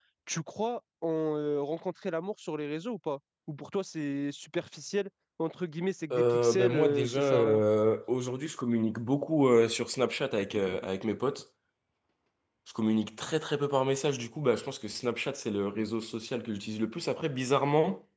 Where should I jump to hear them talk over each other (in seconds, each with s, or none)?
6.1 s